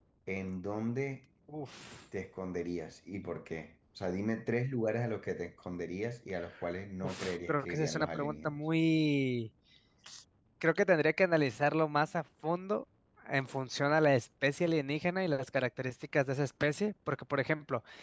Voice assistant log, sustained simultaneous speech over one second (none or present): present